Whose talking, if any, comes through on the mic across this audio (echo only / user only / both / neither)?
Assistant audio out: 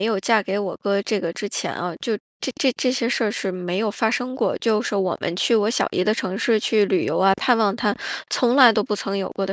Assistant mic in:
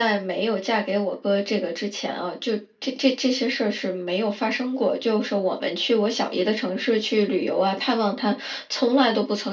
echo only